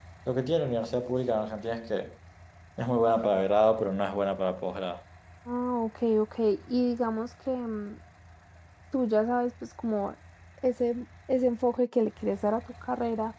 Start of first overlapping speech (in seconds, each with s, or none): none